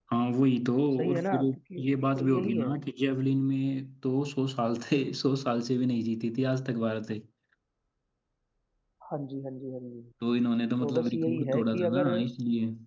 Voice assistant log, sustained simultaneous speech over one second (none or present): present